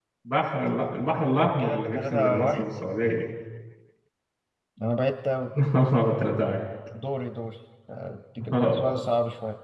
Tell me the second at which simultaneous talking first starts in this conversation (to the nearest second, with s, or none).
1 s